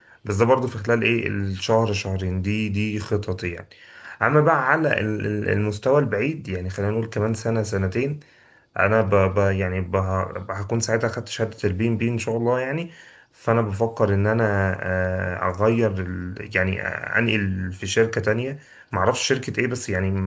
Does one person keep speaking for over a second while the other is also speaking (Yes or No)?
No